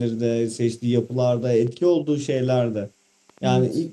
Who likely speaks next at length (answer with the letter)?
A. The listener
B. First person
B